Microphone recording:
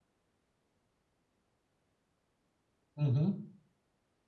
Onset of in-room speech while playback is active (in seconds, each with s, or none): 2.9 s